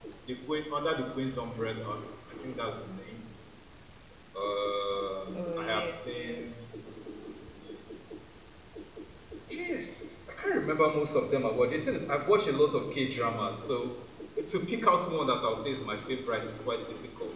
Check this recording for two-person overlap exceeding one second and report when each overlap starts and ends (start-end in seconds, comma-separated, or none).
5.3-6.6